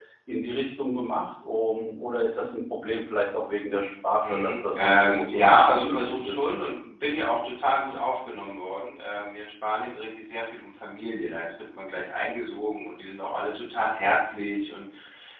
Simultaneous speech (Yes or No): Yes